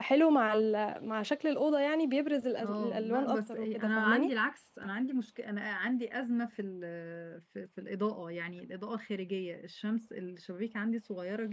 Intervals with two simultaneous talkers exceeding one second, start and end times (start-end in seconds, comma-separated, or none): 2.6-4.3